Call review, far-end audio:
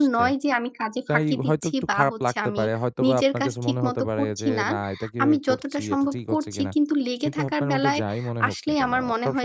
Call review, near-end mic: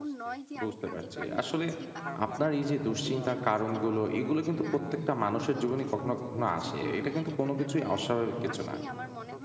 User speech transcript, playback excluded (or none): বুঝতে পারছি। আসলে আপনার এই যে দুশ্চিন্তার কারণগুলো, এগুলো কিন্তু প্রত্যেকটা মানুষের জীবনে কখনো, কখনো আসে। এটা কিন্তু কোন কিছুই অস্বাভাবিক কিছু না।